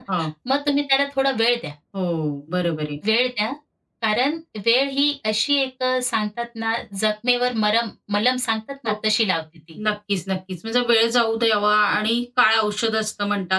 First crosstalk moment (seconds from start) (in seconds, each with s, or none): none